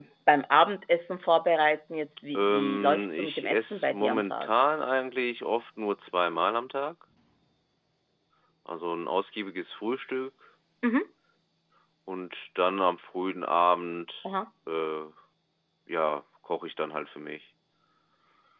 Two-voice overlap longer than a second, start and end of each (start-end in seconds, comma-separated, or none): 2.4-4.5